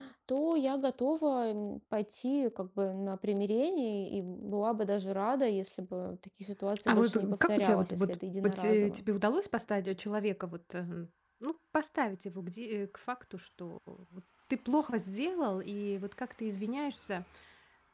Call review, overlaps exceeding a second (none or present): present